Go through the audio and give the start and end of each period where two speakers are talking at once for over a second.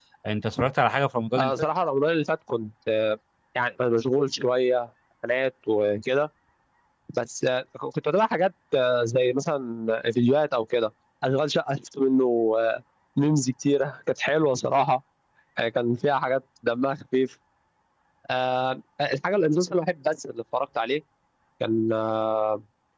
none

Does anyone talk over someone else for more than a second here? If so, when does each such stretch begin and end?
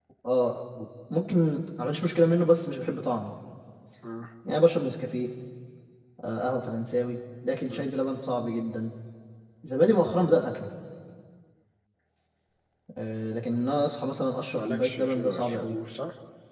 14.5-15.8

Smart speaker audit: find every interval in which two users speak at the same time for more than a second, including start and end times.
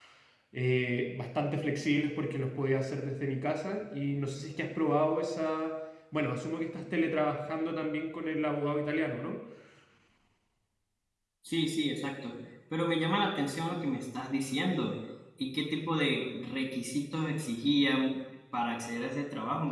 none

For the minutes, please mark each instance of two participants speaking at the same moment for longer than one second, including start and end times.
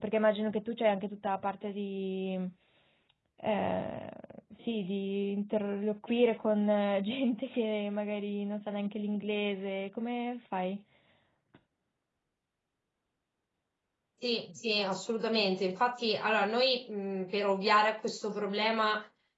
none

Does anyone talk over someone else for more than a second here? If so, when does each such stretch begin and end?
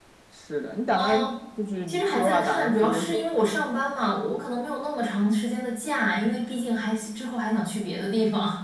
1.9-3.3

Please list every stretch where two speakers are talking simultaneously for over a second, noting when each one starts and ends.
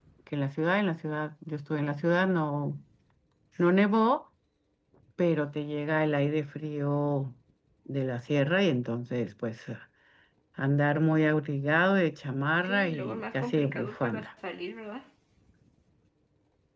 12.6-14.2

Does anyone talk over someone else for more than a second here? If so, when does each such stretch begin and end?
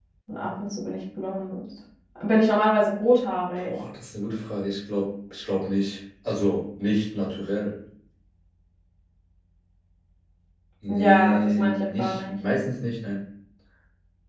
10.9-12.3

